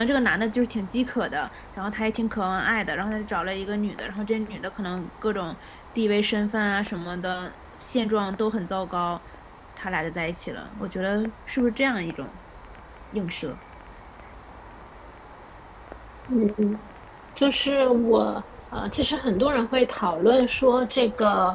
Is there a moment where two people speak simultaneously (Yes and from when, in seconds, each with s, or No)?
No